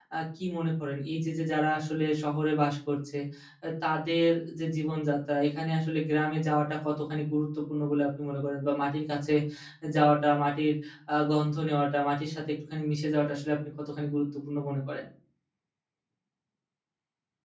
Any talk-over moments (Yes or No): No